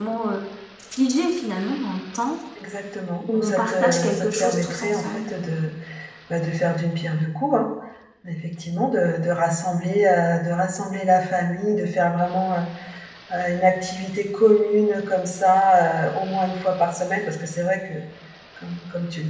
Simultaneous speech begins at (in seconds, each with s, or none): 3.3 s